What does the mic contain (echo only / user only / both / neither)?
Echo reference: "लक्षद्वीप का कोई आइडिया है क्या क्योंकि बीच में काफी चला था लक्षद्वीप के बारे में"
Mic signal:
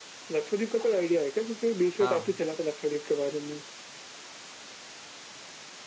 both